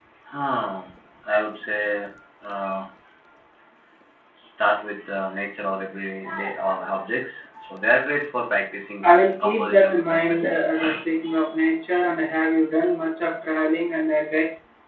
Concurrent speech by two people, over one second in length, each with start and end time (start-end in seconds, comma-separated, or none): 9.0-10.5